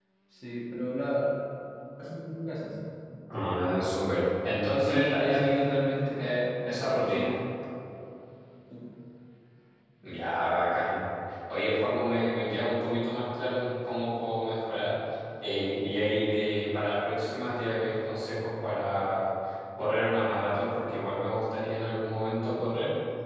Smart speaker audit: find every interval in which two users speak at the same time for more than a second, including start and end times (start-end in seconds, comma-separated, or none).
4.8-6.2